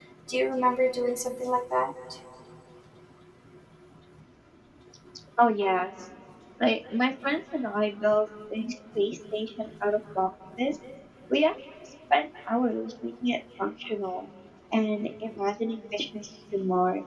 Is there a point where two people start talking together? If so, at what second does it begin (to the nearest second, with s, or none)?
none